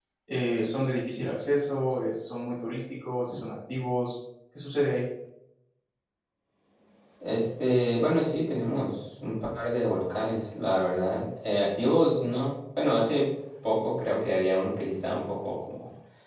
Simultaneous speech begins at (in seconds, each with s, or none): none